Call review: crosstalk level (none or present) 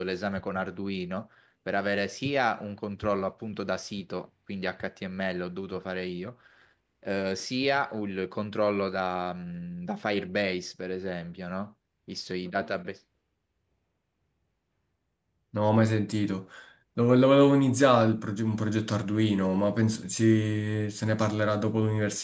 none